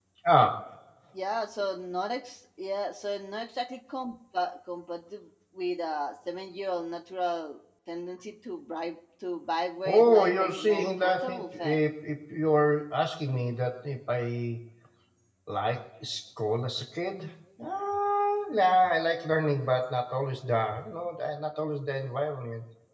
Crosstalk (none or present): present